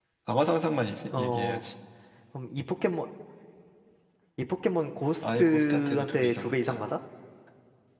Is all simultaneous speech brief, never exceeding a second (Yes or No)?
No